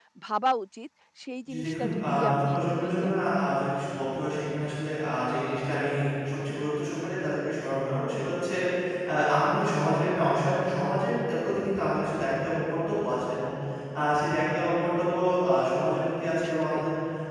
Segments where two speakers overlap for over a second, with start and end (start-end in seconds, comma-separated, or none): 1.5-3.1